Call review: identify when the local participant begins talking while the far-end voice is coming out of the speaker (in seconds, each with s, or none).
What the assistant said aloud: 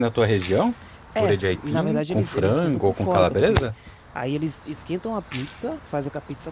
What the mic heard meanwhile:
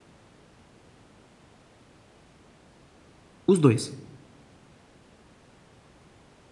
3.5 s